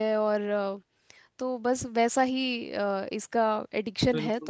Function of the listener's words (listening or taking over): taking over